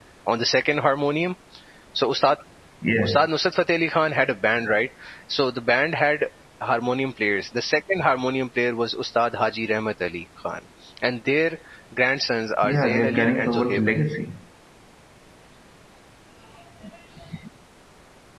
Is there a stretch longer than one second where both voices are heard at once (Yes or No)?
Yes